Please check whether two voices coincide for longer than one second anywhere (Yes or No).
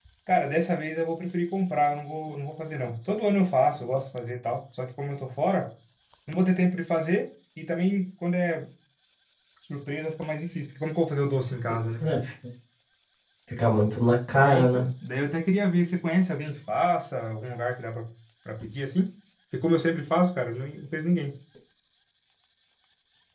No